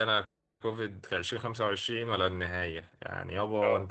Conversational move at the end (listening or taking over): listening